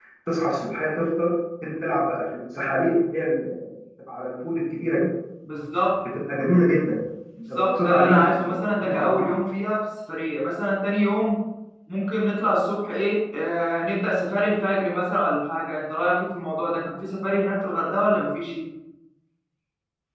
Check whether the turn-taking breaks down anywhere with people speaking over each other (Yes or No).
Yes